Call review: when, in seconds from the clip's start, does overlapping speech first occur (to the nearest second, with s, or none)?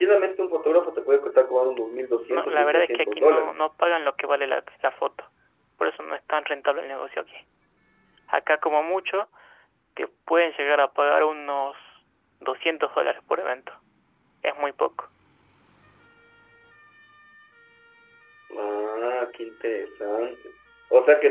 2 s